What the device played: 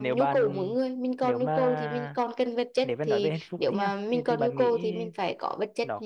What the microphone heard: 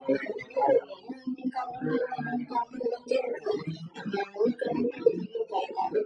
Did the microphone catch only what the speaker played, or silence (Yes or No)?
Yes